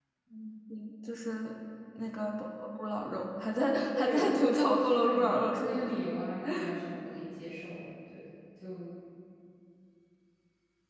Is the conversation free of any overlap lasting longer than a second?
No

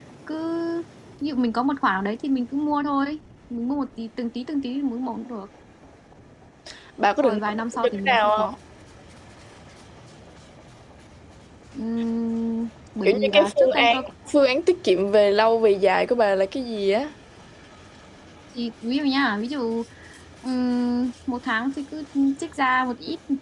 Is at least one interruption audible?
Yes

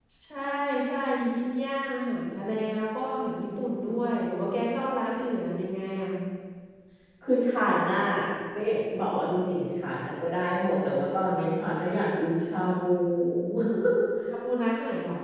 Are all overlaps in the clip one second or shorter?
Yes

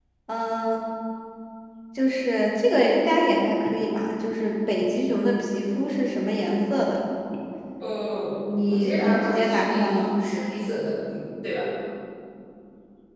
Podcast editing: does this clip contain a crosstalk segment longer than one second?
Yes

